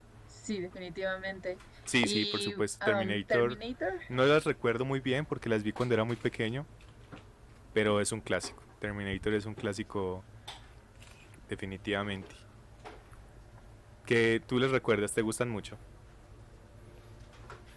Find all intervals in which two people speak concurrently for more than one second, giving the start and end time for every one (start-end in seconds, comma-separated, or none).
2.0-3.6